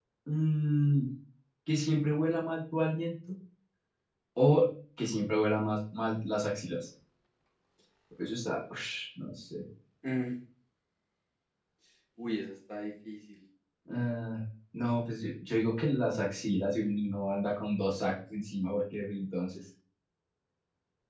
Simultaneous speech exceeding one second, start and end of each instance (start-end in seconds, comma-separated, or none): none